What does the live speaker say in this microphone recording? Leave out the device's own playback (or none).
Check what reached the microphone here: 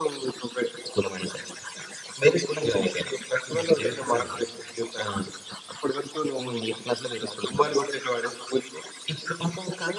'దిల్ పసంద్.'